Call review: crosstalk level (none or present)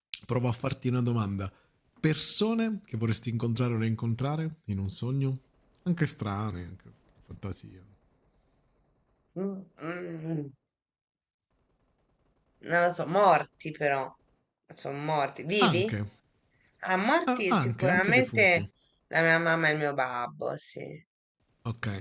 present